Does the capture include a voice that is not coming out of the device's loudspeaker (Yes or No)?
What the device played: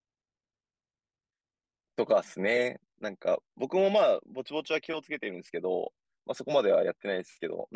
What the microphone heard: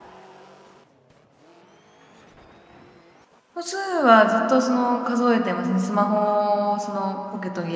Yes